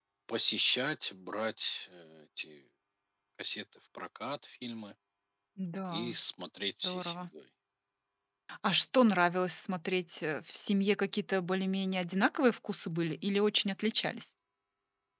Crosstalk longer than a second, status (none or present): none